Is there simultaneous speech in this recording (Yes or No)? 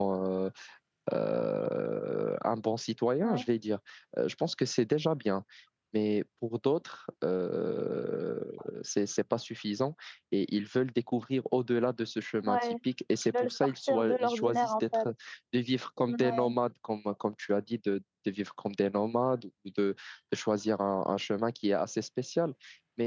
Yes